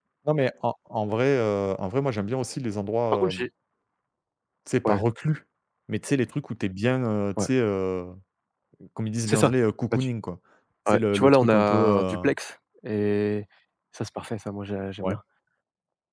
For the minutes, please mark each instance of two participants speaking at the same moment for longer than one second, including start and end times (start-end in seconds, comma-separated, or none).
10.9-12.2